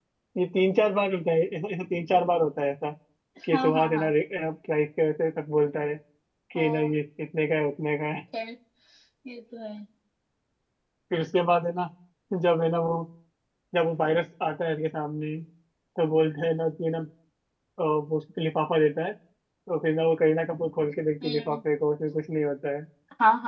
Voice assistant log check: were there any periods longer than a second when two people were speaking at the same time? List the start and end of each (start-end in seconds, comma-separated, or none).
none